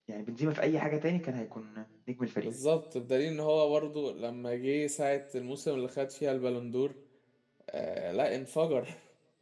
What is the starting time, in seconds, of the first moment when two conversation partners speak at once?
none

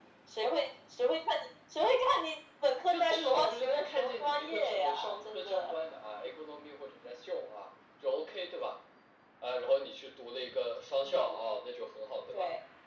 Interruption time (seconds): 2.9 s

